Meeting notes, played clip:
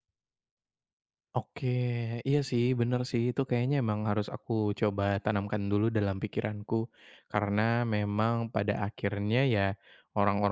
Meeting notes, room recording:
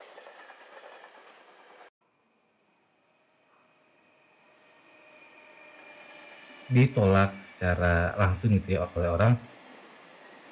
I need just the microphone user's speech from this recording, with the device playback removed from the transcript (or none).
ditolak secara langsung gitu ya oleh orang,